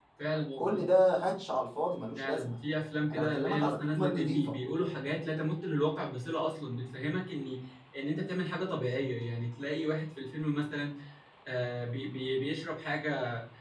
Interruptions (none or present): present